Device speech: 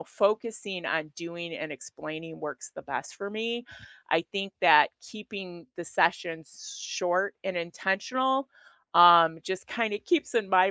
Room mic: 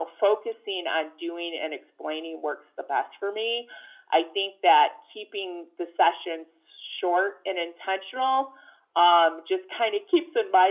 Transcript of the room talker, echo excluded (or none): none